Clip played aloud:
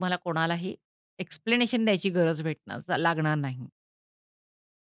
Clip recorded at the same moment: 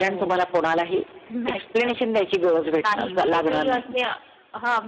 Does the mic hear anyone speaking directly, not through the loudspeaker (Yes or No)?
Yes